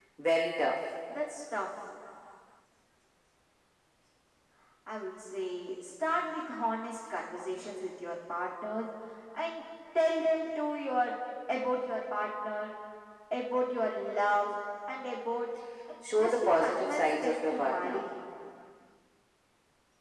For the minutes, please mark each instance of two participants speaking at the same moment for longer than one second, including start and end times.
16.2-18.0

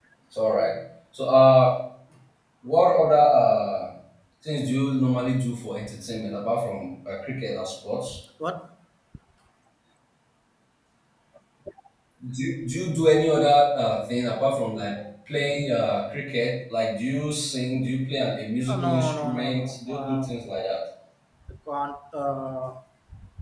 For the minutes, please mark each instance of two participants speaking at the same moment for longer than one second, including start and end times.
18.7-20.3

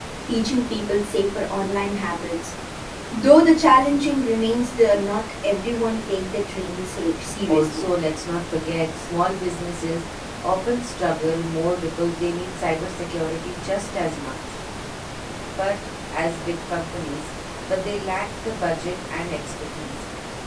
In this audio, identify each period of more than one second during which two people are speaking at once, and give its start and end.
none

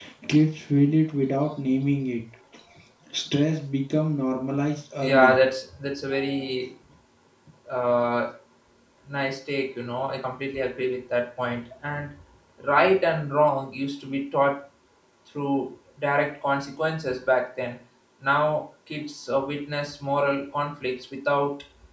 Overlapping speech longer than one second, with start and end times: none

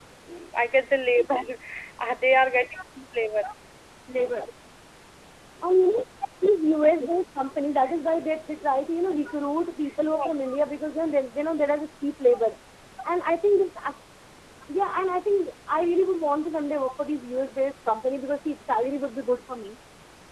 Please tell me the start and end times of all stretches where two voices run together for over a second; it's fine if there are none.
none

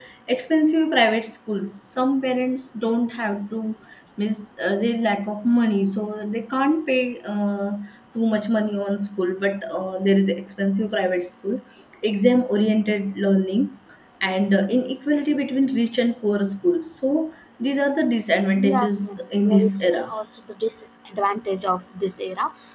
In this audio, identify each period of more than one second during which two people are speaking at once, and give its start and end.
18.7-20.1

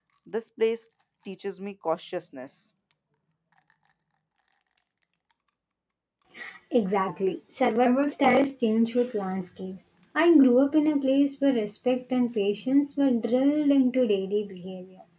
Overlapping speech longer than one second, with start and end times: none

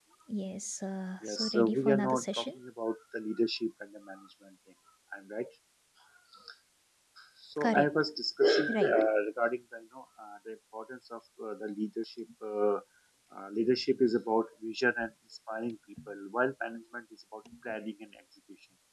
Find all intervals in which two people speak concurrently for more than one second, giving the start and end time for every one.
1.3-2.5

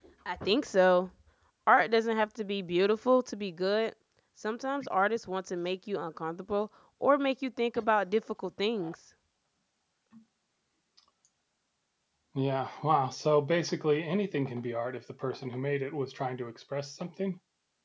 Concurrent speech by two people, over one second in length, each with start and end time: none

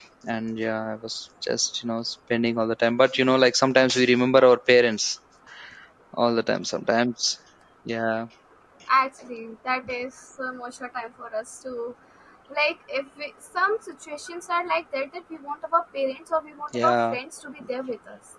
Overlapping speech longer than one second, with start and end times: none

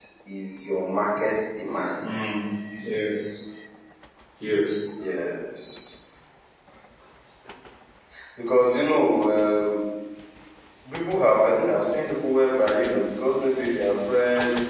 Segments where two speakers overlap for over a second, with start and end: none

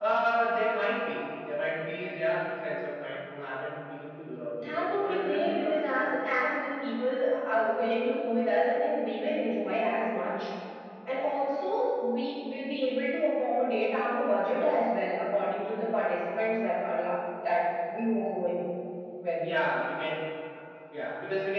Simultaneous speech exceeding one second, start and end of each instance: 4.7-6.1

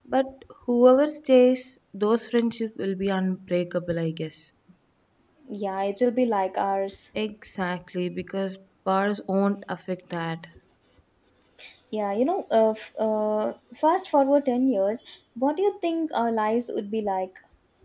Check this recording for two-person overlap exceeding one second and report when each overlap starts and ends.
none

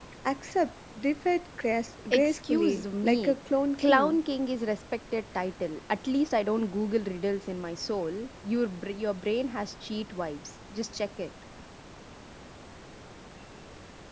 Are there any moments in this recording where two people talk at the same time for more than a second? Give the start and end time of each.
2.1-3.3

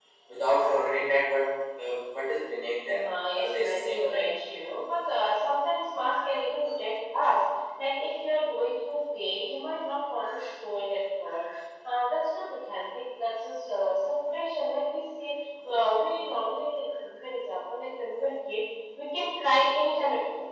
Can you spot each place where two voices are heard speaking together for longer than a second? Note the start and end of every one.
3.0-4.4

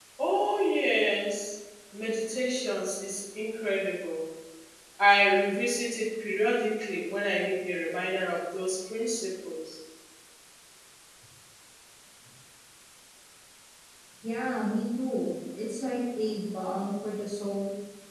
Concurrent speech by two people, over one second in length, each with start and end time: none

